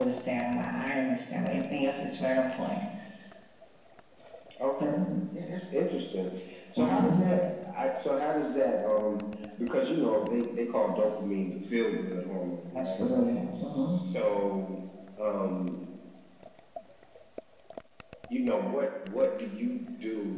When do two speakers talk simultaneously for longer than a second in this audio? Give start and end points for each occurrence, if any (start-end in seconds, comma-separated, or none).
none